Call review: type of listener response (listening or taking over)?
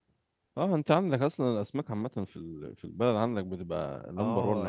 taking over